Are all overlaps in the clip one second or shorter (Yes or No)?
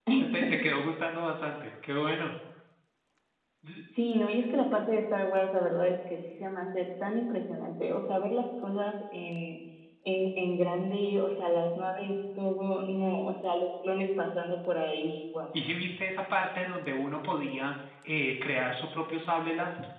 Yes